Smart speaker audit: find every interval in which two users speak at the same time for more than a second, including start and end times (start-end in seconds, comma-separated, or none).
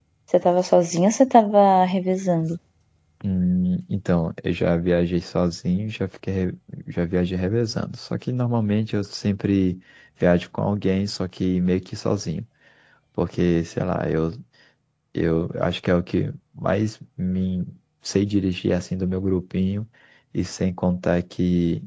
none